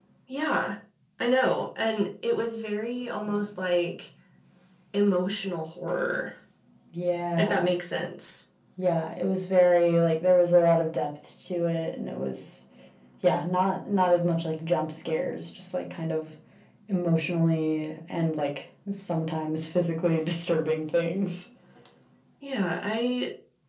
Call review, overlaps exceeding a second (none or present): none